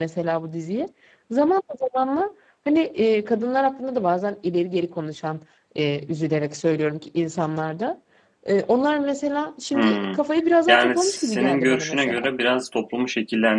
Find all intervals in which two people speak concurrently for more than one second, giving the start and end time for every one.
10.7-12.3

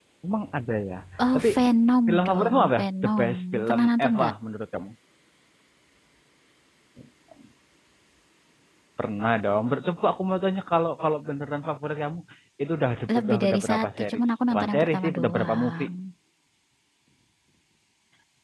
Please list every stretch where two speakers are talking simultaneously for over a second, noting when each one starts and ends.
2.1-4.3, 13.2-15.9

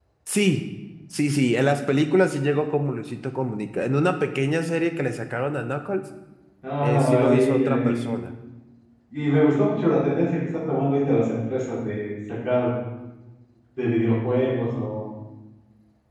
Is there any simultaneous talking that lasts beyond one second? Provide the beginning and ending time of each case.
6.8-8.0

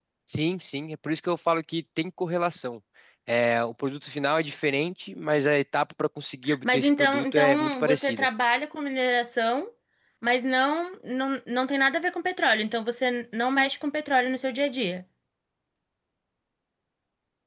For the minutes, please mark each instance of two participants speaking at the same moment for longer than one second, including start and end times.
6.6-8.3

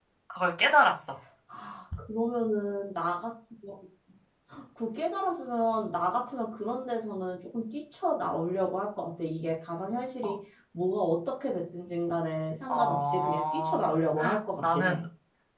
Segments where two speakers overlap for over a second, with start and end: 12.7-13.9

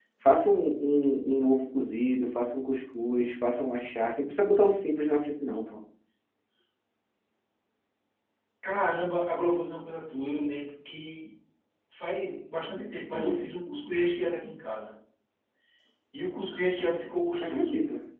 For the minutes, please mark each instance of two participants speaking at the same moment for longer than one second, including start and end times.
none

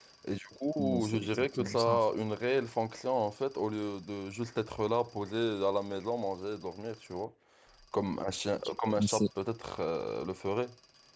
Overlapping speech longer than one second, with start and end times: 0.8-2.1

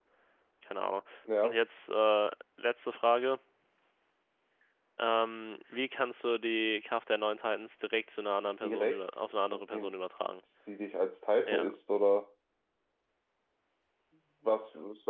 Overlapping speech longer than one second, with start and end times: 8.4-10.0

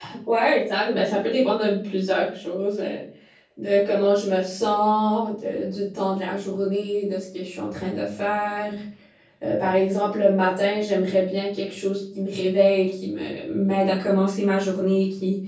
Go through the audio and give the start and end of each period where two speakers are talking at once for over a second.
none

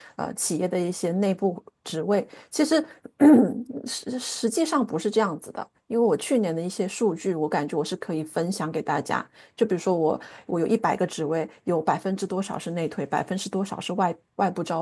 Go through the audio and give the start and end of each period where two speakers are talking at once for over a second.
none

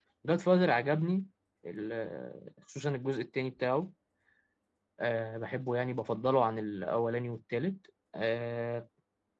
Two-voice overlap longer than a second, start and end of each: none

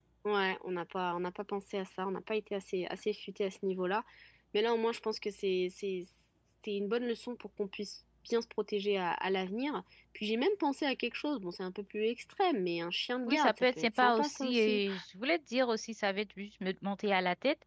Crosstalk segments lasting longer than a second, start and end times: 13.3-14.8

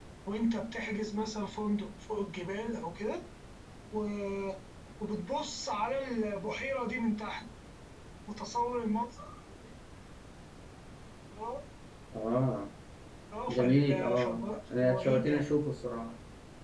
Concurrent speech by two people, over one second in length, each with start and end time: 13.5-15.4

